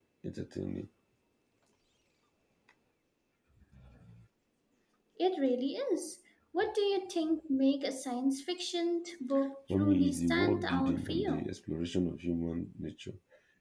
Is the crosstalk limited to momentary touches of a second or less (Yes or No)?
No